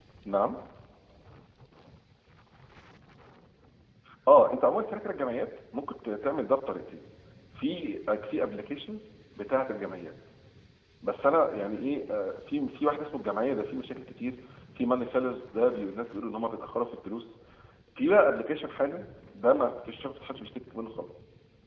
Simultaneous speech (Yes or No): No